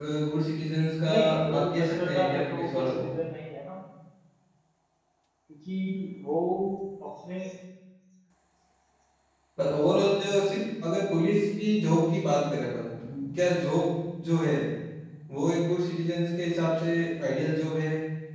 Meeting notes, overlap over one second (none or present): present